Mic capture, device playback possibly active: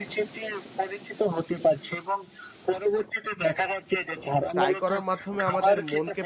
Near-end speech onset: 4.5 s

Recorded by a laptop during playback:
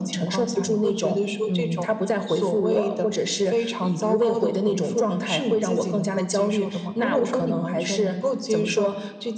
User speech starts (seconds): none

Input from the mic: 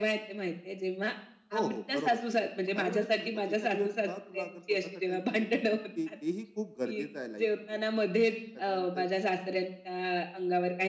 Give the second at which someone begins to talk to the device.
1.5 s

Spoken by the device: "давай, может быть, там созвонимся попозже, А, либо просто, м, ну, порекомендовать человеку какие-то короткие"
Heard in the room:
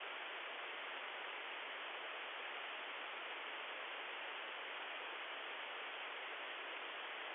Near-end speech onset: none

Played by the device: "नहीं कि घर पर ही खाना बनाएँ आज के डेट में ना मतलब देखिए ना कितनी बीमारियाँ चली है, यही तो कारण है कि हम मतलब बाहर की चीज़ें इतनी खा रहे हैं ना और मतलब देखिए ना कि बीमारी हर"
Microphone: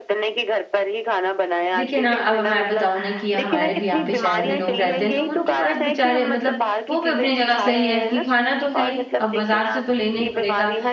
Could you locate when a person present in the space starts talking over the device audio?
1.8 s

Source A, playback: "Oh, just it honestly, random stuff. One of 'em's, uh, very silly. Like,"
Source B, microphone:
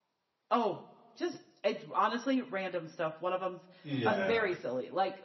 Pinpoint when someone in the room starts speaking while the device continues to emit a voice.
3.8 s

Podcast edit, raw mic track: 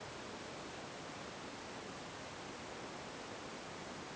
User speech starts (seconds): none

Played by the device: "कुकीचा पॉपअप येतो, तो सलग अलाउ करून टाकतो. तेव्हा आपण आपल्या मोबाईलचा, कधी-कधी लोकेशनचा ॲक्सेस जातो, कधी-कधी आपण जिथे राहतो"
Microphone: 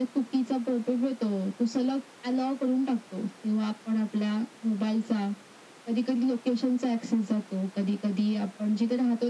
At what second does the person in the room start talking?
none

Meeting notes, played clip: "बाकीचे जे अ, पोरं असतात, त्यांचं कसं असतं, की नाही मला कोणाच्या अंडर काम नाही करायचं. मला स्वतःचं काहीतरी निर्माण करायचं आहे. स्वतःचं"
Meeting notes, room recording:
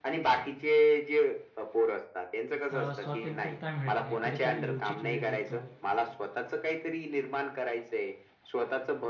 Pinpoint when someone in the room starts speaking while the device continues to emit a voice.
2.7 s

